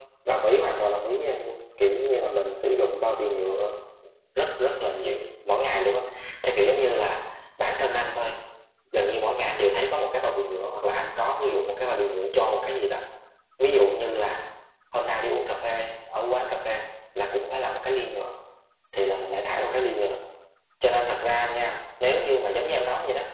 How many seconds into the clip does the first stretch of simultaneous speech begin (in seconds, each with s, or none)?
none